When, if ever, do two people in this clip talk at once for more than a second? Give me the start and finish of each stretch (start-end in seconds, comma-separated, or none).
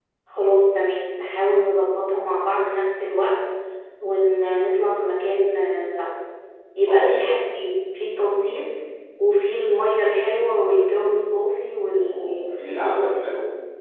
11.9-13.2